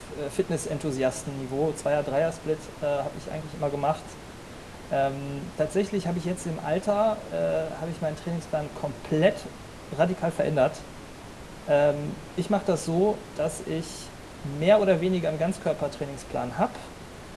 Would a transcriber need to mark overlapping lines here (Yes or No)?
No